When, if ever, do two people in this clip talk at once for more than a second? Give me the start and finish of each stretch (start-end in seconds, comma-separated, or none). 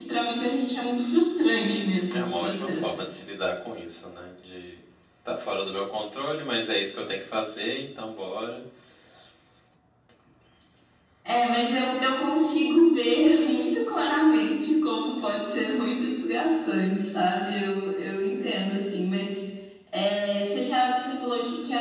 1.7-2.9